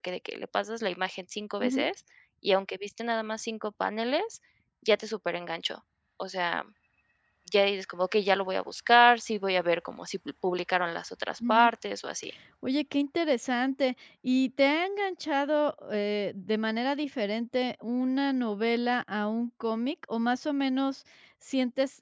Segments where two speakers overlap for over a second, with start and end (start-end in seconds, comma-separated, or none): none